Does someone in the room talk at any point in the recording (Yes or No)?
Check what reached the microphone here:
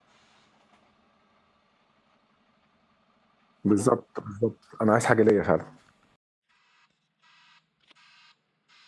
Yes